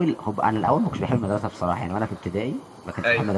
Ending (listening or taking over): listening